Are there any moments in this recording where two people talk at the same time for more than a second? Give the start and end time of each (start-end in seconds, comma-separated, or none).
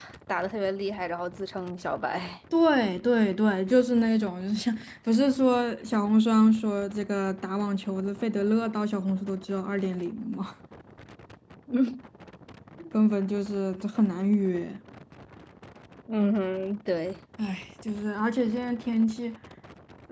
none